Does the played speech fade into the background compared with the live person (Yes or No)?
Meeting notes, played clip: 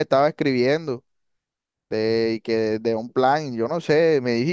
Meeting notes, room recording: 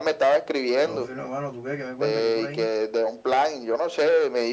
No